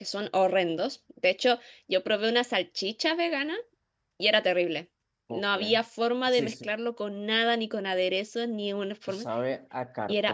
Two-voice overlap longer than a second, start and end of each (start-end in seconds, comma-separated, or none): none